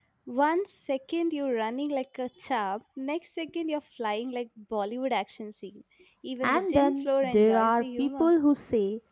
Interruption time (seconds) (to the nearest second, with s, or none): 6 s